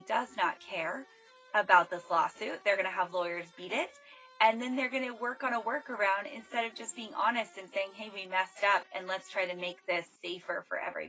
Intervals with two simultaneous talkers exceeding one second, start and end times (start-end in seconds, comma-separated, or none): none